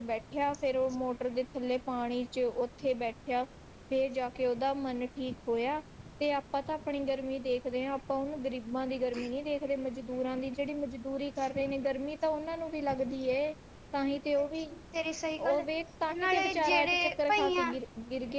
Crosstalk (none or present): present